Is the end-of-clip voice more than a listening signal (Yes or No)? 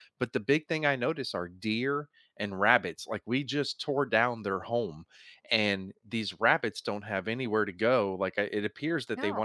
No